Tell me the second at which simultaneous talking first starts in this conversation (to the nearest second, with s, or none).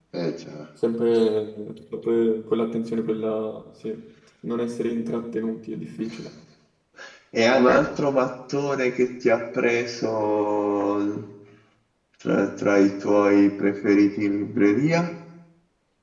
none